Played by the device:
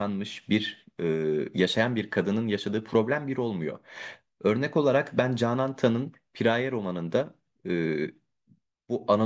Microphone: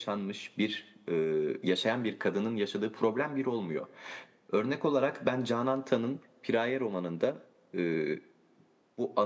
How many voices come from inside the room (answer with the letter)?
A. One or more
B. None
B